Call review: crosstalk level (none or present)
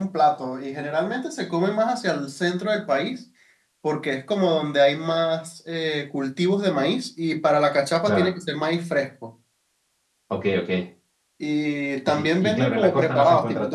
present